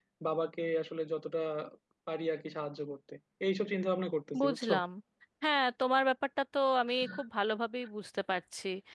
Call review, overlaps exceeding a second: none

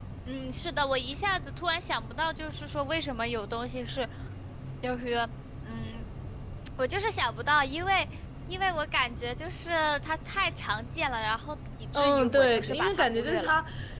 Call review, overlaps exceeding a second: present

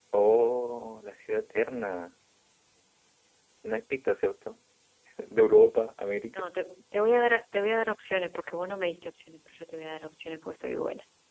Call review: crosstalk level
none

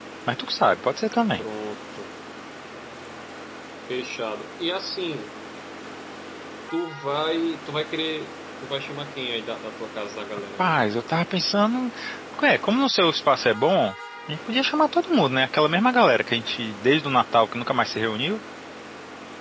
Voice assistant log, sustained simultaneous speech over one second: none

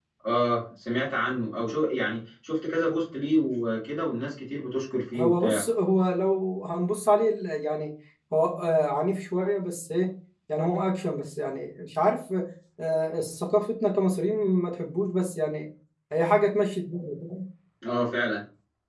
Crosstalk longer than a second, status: none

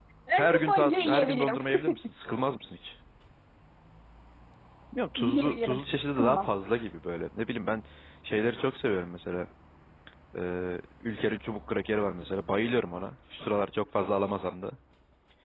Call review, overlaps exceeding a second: present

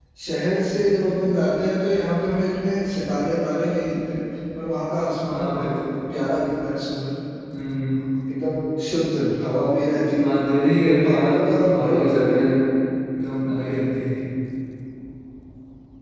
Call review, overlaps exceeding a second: present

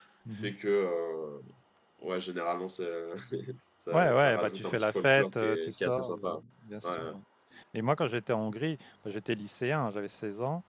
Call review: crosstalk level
present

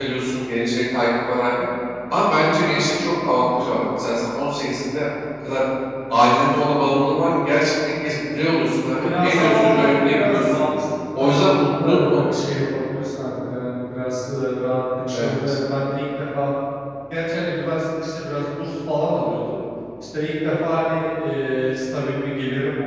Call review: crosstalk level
present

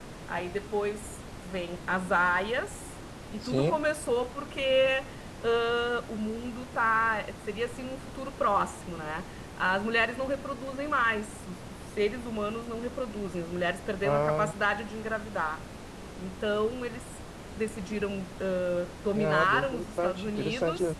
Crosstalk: present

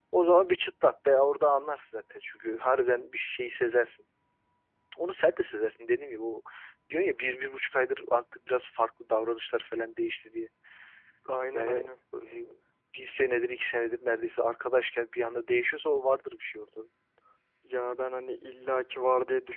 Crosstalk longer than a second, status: none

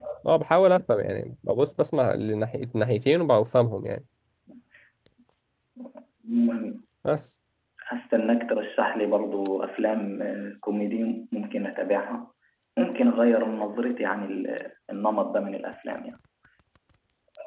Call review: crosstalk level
none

